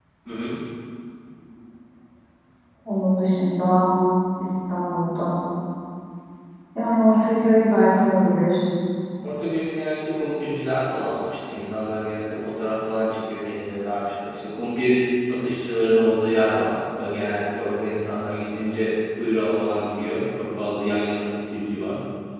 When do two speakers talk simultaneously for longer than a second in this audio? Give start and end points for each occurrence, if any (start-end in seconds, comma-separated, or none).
none